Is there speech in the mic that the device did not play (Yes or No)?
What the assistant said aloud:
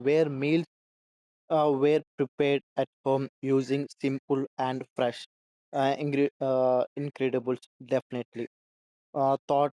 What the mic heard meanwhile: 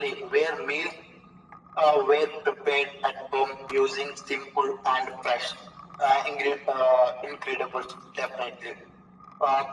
No